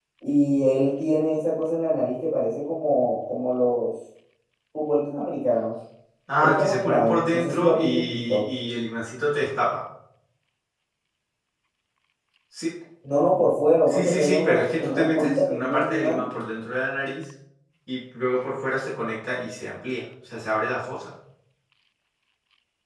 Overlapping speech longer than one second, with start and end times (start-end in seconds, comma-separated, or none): 6.4-8.4, 13.9-16.2